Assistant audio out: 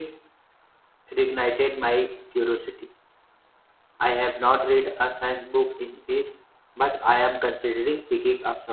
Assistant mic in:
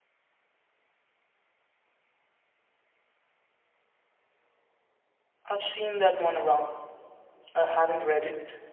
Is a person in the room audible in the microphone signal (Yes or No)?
Yes